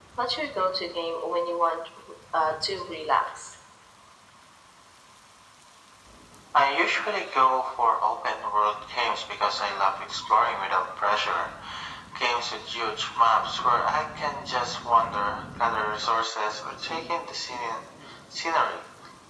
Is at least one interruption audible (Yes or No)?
No